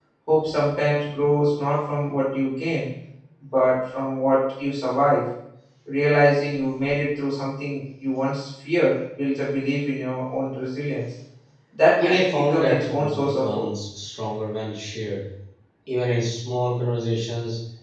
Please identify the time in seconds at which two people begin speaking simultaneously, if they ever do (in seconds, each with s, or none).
12.0 s